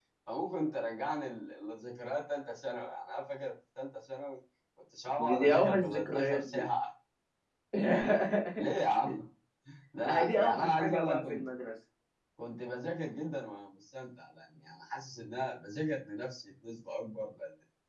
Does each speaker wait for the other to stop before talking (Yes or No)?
No